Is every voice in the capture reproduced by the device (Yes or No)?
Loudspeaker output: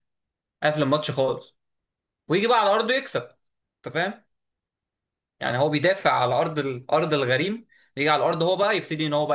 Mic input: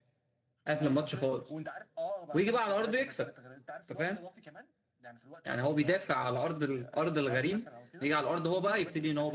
No